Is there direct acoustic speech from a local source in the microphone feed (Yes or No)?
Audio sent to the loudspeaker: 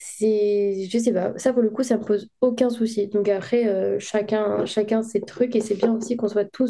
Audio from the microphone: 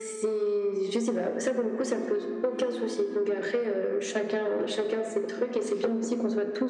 No